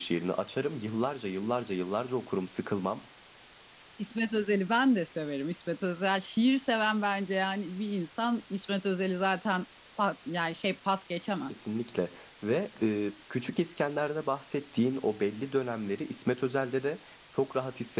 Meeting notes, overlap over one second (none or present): none